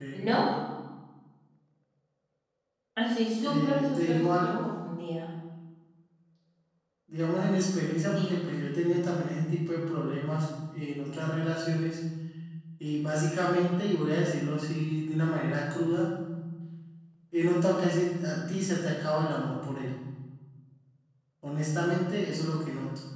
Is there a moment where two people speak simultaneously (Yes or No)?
Yes